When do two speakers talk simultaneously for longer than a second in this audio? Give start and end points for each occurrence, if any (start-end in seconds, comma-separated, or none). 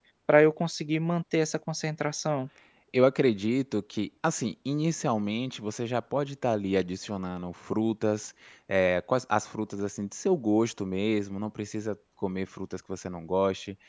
none